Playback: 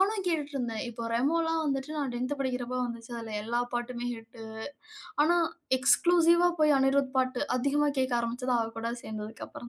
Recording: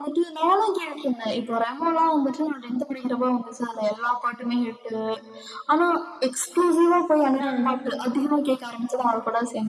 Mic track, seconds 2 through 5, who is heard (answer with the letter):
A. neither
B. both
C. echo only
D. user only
C